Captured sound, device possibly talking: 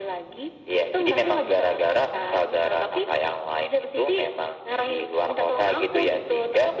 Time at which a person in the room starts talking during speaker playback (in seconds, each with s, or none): none